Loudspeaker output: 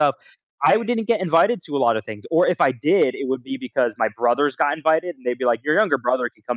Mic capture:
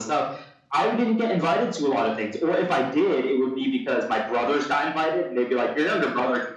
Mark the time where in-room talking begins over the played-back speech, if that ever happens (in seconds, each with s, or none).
none